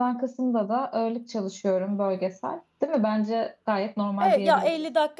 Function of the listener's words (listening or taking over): taking over